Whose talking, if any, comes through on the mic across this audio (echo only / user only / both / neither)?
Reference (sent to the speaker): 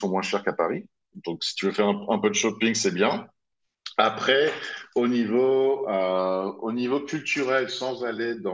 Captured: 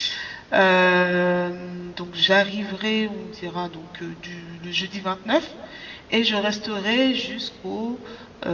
user only